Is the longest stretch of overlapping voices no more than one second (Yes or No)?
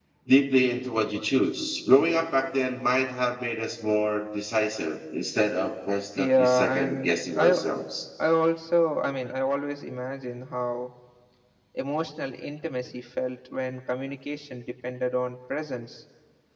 No